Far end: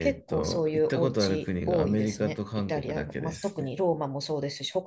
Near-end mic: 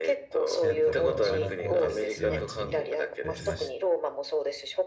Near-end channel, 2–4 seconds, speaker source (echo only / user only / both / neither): both